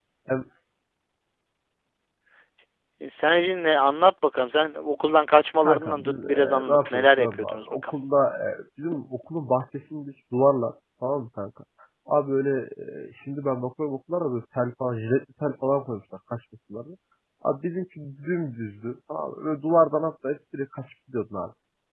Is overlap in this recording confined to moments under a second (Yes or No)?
No